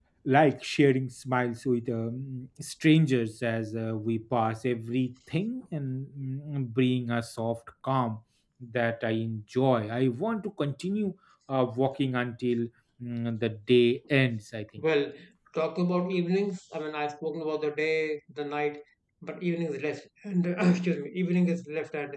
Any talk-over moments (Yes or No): No